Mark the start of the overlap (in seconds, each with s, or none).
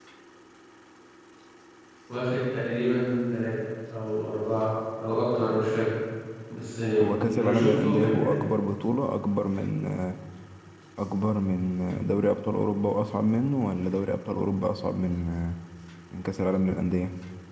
7.0 s